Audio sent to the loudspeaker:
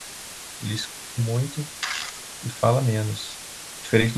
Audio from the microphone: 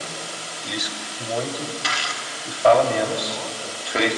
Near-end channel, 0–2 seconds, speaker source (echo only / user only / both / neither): echo only